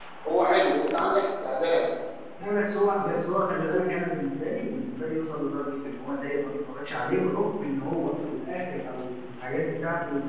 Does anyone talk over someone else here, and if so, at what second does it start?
none

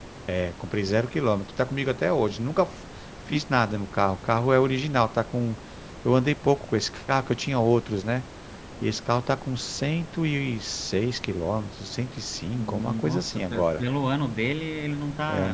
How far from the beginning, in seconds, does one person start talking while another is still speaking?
12.5 s

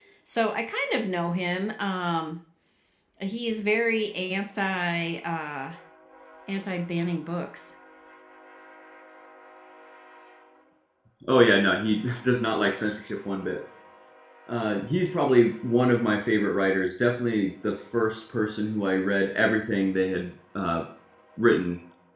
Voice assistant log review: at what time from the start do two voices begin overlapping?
none

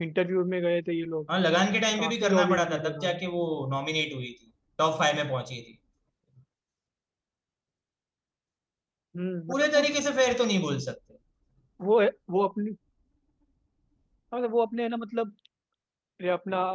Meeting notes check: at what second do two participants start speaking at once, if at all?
1.9 s

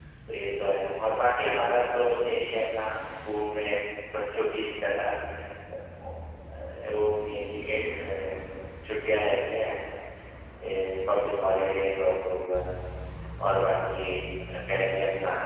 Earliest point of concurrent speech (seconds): none

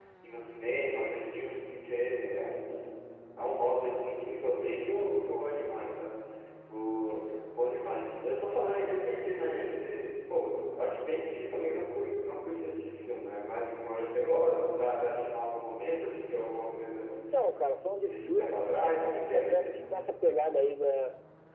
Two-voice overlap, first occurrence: 18.1 s

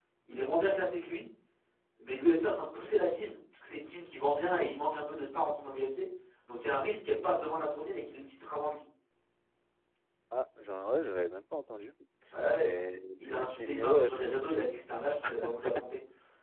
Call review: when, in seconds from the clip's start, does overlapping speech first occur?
12.5 s

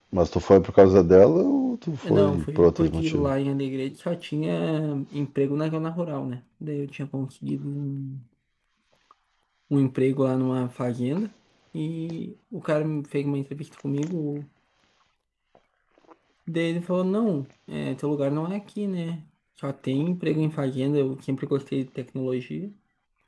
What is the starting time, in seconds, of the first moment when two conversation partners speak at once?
2.0 s

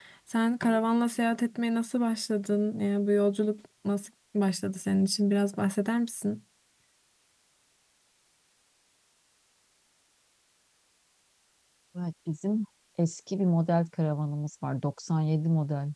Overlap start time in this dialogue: none

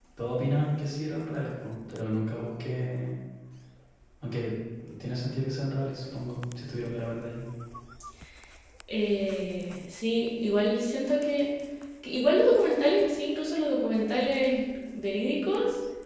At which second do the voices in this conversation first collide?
none

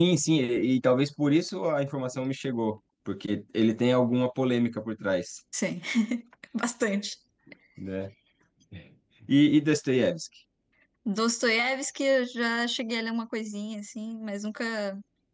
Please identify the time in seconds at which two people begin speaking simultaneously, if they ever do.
none

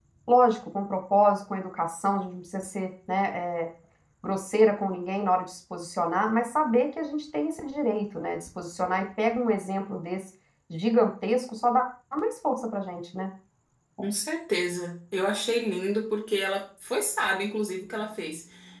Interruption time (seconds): none

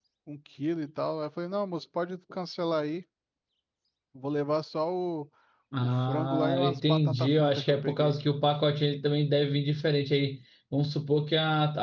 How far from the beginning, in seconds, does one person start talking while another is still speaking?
5.8 s

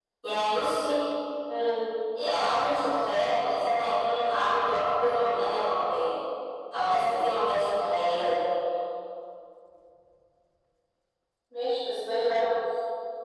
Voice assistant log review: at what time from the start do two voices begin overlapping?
none

